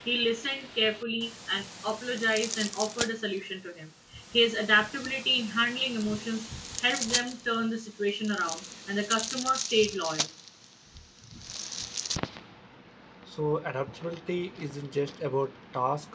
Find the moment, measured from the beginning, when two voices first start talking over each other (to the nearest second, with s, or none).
none